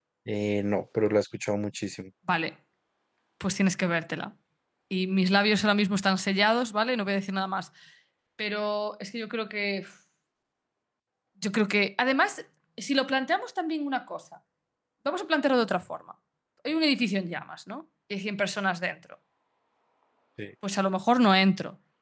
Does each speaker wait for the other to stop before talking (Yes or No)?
Yes